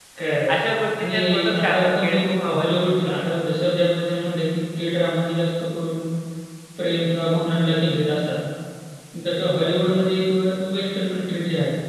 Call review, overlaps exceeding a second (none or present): present